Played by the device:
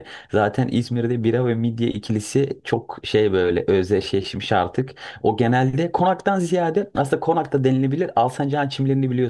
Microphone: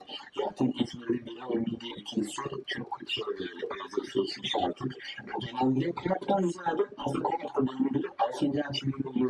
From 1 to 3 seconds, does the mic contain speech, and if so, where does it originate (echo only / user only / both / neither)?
echo only